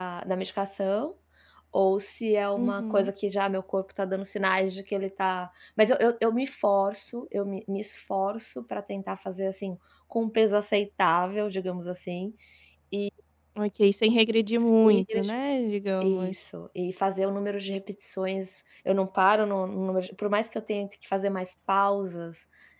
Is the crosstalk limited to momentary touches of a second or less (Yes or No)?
Yes